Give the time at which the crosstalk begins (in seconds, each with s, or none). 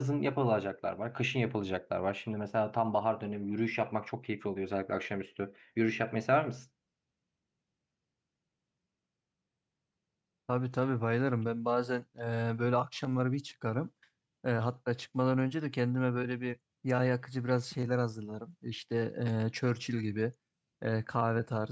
none